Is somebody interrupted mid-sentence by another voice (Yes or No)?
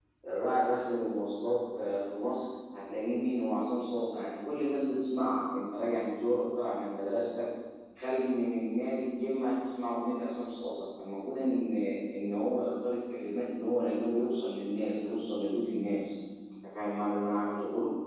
No